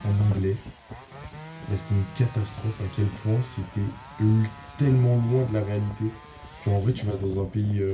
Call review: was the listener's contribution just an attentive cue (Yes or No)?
Yes